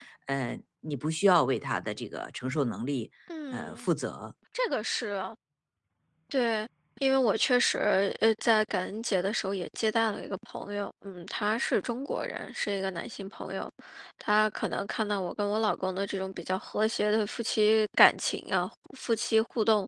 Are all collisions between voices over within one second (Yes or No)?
Yes